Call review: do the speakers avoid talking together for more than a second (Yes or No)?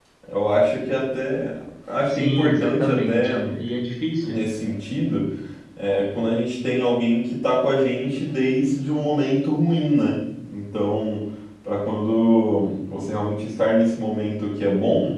No